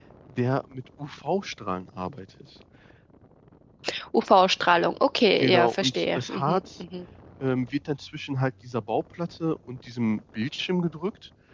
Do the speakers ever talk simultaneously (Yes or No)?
Yes